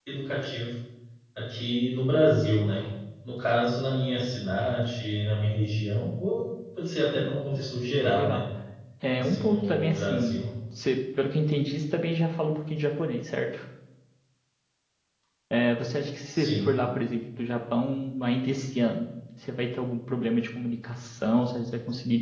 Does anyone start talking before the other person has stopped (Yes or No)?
Yes